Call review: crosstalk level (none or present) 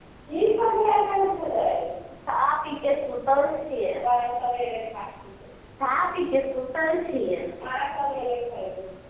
none